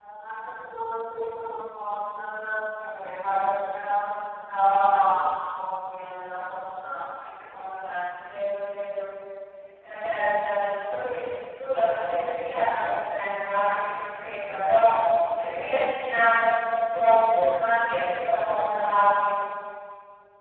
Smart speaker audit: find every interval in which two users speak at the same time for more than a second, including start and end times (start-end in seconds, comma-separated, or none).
none